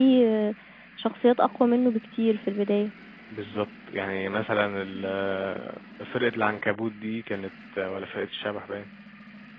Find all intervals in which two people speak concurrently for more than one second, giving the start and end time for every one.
none

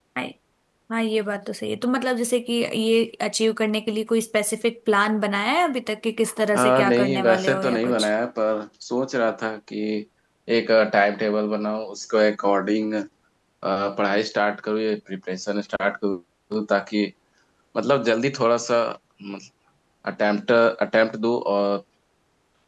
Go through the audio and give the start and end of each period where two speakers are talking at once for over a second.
6.6-8.1

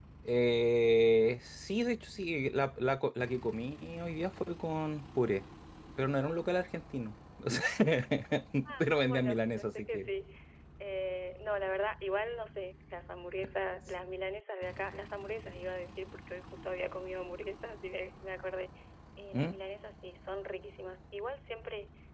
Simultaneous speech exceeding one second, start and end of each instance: 8.8-10.1

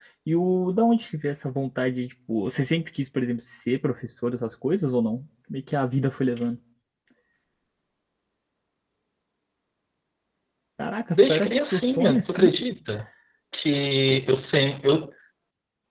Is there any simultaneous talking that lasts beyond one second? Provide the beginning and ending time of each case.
11.1-12.6

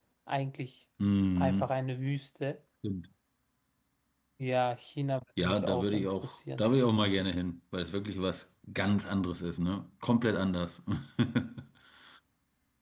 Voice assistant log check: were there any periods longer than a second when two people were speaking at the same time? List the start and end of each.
5.4-6.6

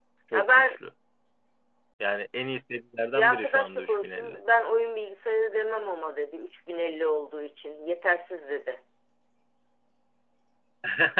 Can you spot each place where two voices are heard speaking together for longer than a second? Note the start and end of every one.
3.1-4.4

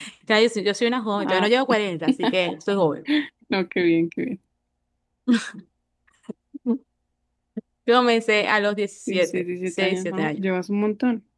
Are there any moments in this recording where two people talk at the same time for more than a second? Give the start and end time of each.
9.1-10.4

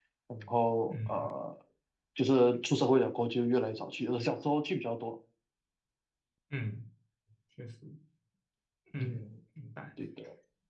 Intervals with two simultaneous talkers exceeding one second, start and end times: none

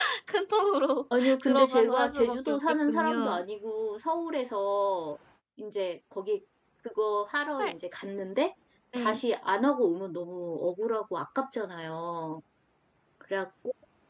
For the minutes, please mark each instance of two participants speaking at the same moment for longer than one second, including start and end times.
1.2-3.4

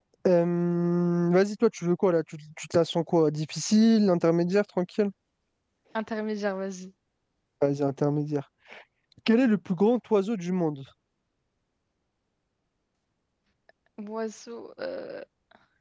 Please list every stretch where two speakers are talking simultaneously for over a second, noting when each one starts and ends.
none

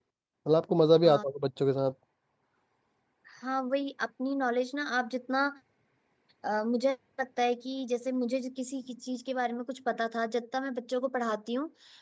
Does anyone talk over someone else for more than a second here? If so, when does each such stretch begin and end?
none

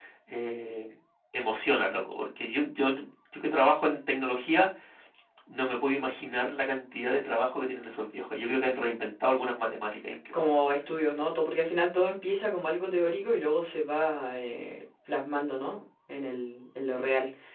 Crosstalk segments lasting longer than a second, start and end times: none

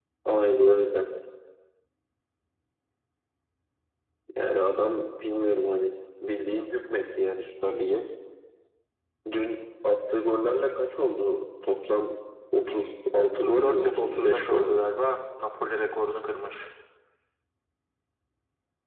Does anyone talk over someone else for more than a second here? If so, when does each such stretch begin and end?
13.4-14.9

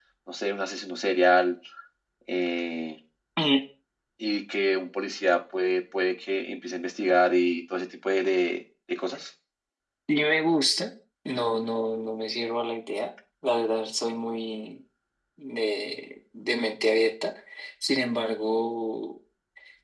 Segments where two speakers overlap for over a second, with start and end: none

